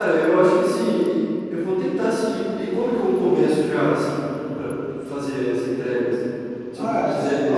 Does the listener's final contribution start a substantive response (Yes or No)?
Yes